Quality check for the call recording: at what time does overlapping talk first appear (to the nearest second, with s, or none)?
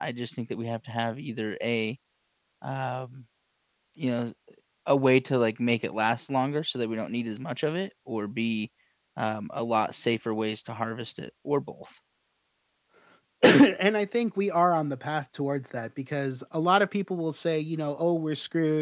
none